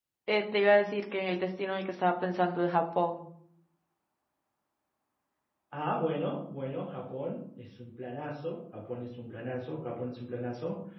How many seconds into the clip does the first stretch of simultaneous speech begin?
none

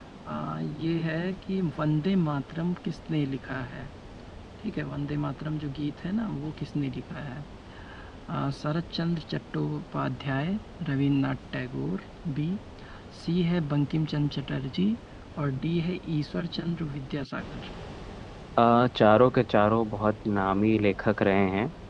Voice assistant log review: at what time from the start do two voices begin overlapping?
none

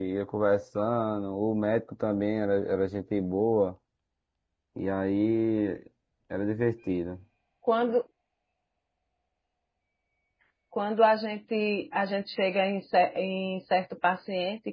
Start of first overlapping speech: none

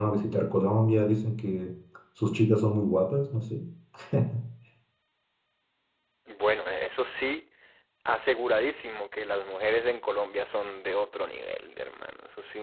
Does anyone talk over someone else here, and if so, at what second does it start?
none

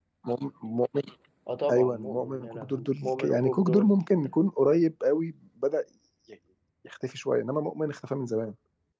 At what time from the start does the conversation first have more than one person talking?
2 s

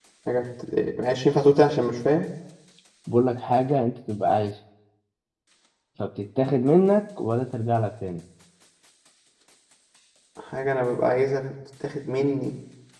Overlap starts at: none

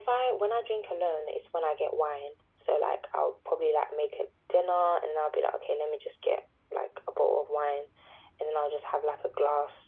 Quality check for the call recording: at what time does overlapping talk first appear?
none

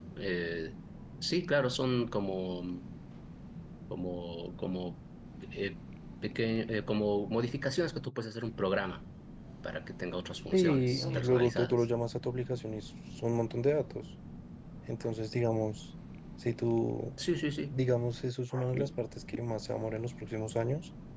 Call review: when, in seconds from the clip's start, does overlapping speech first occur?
11 s

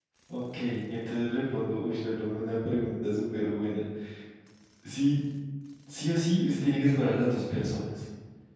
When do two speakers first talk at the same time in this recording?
none

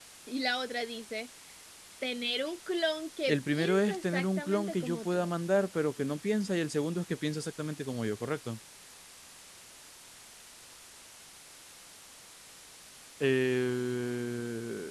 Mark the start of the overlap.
3 s

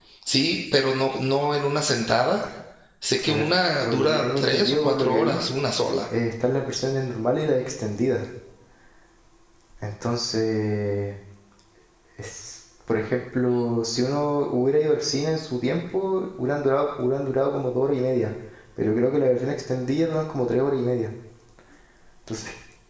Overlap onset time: 3 s

